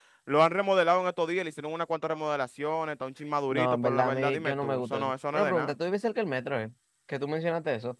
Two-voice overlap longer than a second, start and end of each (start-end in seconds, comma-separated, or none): 3.5-5.7